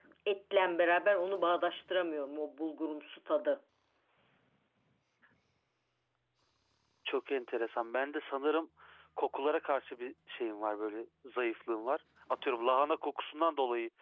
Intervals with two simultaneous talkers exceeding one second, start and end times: none

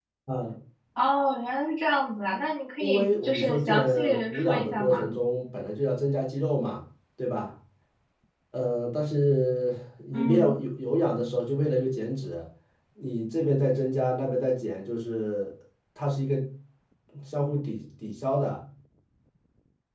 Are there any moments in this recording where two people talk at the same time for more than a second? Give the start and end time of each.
2.8-5.1

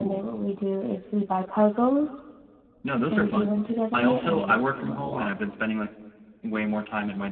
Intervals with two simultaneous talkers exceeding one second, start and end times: 3.9-5.3

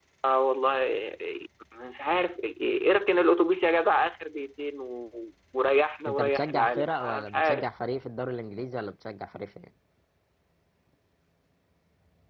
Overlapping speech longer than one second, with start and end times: 6.1-7.6

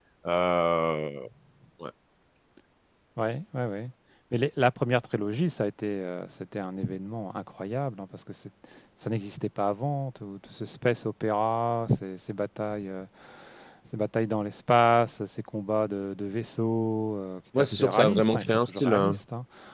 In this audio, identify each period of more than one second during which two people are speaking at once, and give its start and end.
17.6-19.1

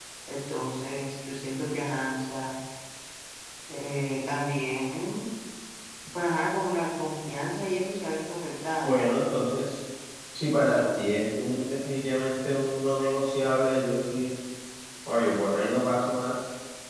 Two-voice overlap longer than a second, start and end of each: none

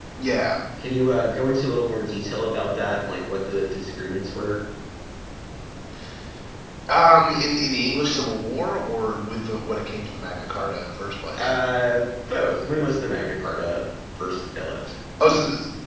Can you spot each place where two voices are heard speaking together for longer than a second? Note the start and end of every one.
none

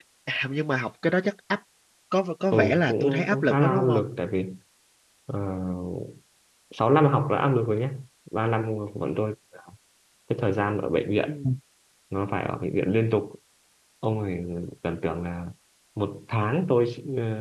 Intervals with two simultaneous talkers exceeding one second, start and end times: 2.5-4.0

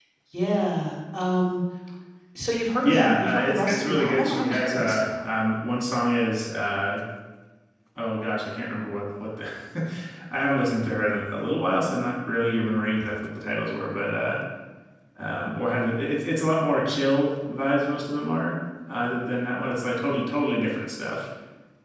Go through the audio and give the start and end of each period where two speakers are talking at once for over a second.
2.8-5.2

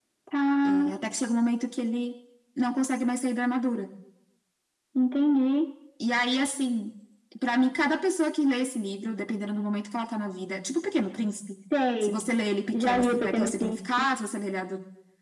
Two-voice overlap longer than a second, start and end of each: 12.7-14.1

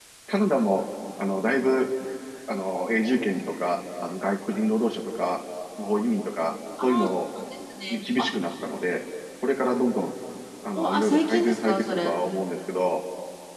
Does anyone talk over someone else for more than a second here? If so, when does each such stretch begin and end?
10.7-12.2

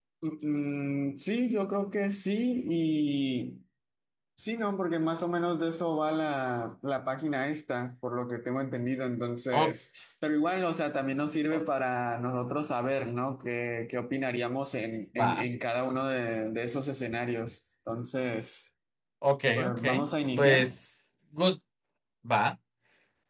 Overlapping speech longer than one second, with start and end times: none

